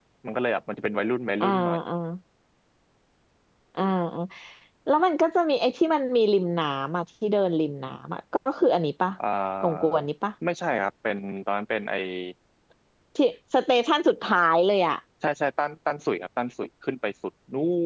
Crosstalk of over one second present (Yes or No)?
No